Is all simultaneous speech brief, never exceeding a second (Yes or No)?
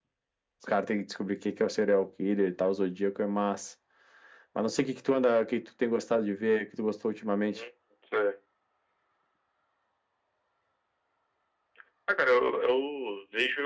Yes